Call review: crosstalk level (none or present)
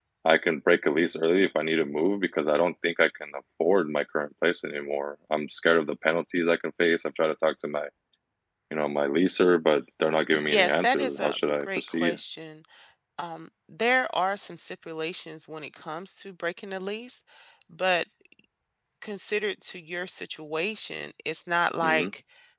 present